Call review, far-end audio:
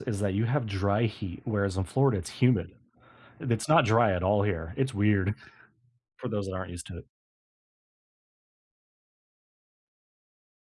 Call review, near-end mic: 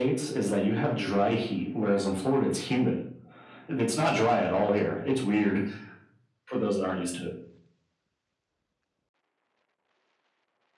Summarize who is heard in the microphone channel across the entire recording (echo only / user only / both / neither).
echo only